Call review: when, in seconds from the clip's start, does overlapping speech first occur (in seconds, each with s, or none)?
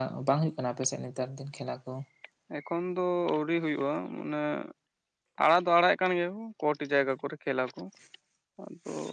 none